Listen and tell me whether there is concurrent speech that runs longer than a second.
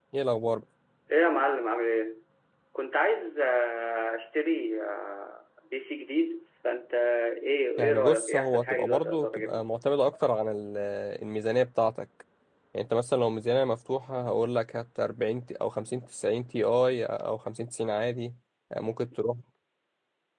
Yes, from 7.8 s

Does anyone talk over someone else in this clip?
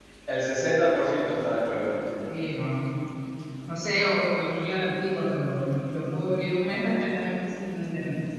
No

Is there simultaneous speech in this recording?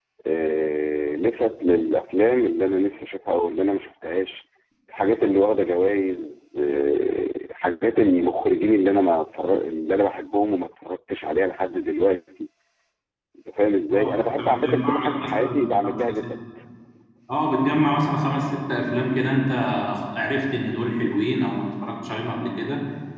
Yes, from 13.9 s

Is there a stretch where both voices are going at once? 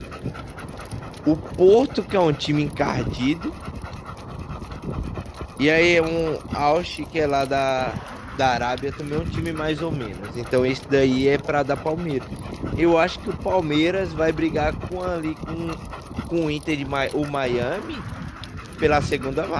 No

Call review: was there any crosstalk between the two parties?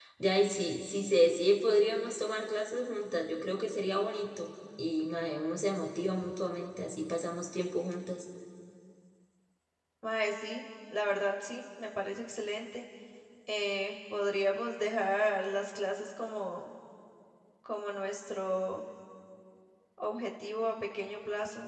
No

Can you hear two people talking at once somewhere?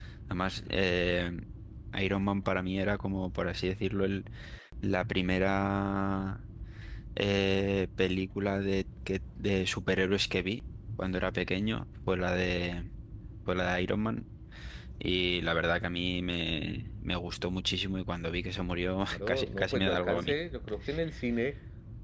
Yes, from 19.1 s

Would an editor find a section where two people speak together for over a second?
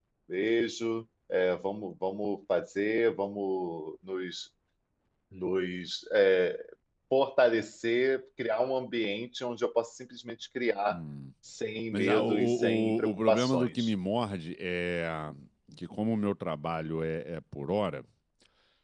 Yes, from 11.9 s

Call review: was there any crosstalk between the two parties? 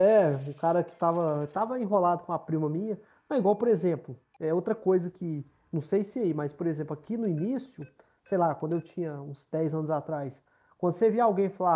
No

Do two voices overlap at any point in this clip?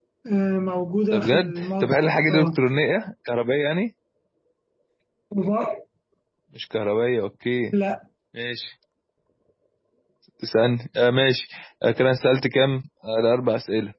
Yes, from 1.1 s

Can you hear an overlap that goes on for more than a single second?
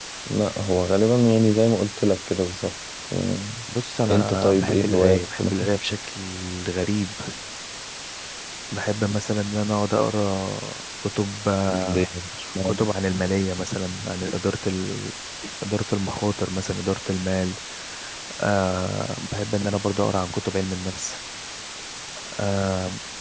Yes, from 4.1 s

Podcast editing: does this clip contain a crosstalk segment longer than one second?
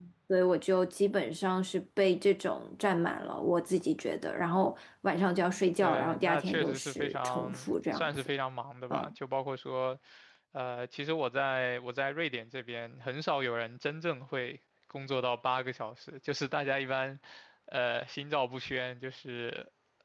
Yes, from 5.8 s

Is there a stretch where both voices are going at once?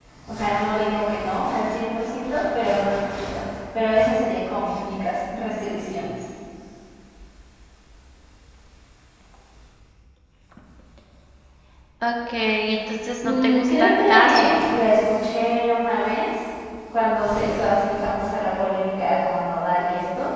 Yes, from 13.2 s

